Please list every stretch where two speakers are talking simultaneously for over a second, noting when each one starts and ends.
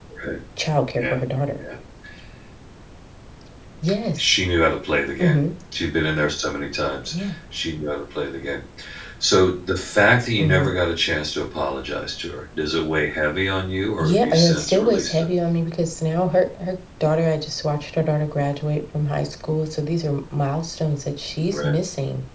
14.0-15.2

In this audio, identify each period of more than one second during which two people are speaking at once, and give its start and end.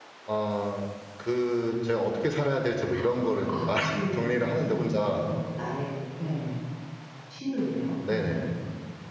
3.7-5.2

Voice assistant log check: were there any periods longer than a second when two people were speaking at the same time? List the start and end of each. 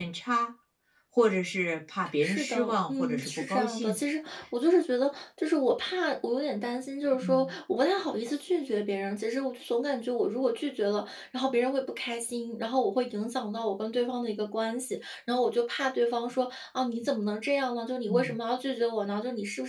2.2-4.0

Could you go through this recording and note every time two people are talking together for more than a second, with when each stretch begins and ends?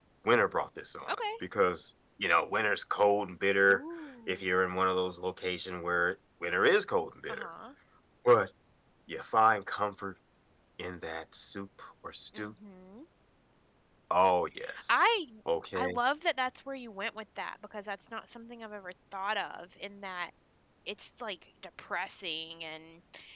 none

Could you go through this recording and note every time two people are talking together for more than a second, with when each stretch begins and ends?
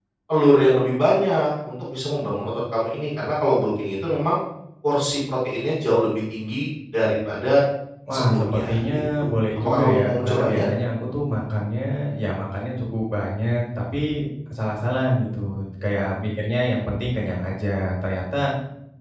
8.1-10.7

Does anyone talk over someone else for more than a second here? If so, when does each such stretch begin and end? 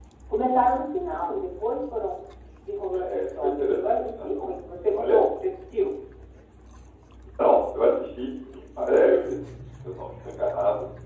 3.0-4.3

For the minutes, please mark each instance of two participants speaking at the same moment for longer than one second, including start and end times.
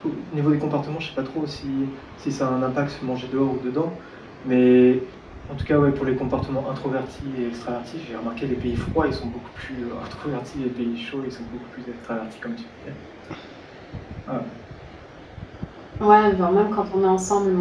none

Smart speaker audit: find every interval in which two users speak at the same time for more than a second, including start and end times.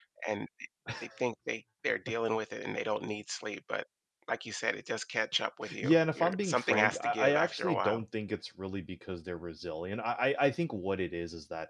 5.8-8.0

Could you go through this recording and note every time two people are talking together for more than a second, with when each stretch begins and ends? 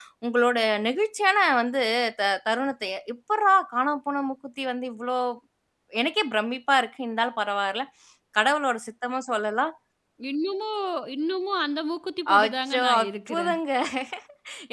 12.3-13.6

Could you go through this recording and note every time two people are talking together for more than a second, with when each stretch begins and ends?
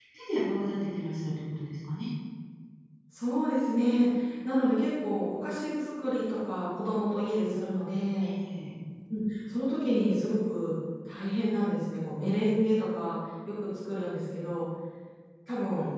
none

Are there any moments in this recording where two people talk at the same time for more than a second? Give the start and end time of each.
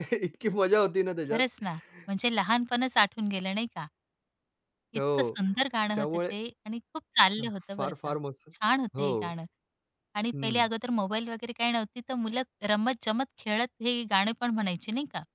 none

